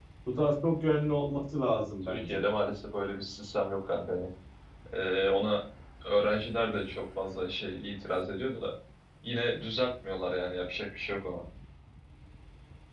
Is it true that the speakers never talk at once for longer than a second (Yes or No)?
Yes